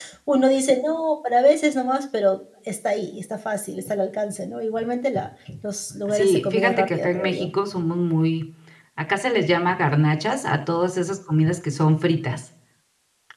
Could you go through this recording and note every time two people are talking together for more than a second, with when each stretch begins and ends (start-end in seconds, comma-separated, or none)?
6.1-7.5